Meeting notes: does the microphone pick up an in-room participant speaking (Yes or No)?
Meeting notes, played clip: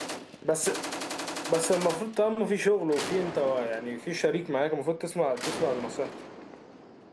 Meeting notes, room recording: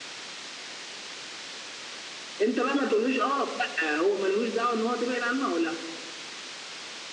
Yes